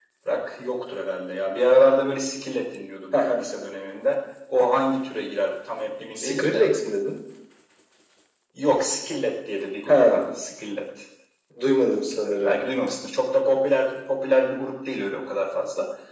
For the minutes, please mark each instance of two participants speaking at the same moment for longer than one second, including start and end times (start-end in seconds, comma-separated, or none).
none